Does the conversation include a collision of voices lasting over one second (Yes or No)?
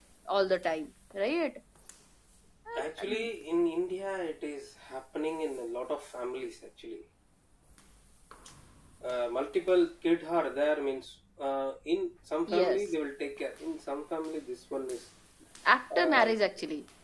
No